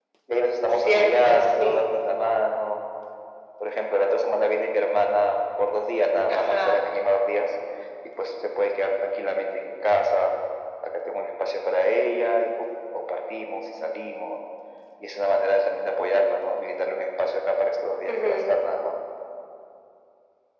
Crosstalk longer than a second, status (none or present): present